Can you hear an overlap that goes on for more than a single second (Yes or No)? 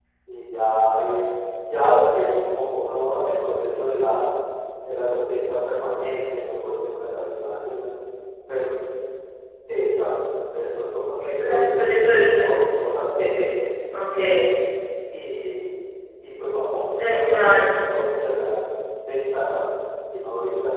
Yes